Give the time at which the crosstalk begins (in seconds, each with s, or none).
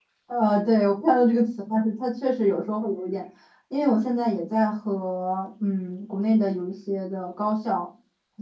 none